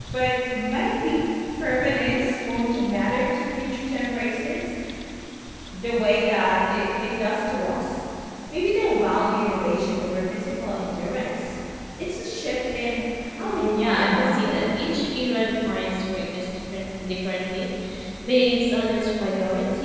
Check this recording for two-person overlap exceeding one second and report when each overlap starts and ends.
13.4-14.6

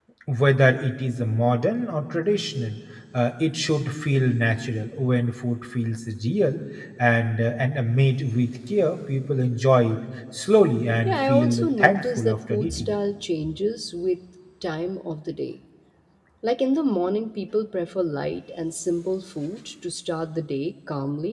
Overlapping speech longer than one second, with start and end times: 11.0-13.0

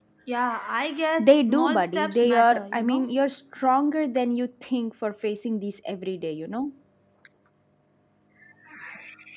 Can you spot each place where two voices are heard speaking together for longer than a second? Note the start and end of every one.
1.2-3.1

